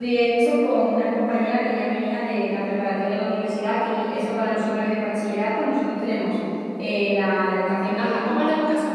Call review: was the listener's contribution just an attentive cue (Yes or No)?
No